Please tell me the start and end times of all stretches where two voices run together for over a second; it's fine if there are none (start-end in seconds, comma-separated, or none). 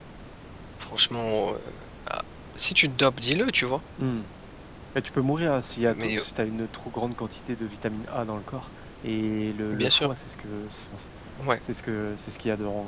none